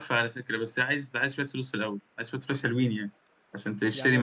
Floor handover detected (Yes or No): Yes